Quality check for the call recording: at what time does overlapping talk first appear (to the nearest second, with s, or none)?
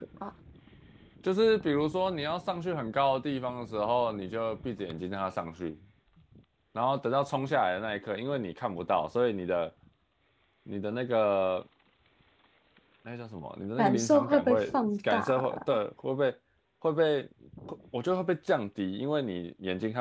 14 s